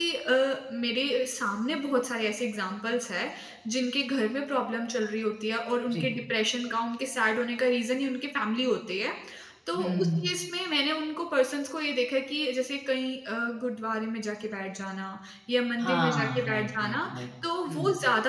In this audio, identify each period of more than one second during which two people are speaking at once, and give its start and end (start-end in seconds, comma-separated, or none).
15.8-17.0